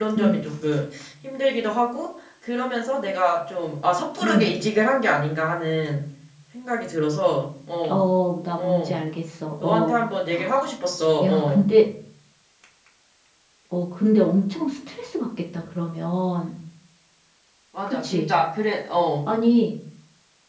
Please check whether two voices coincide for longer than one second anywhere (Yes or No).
No